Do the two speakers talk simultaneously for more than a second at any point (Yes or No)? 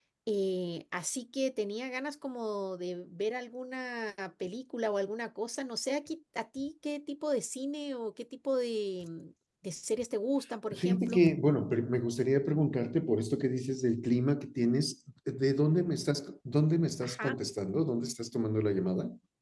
No